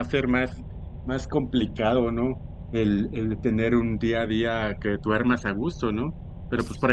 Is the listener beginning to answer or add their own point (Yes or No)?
No